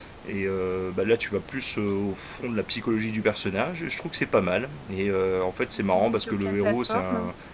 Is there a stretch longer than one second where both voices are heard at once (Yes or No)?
Yes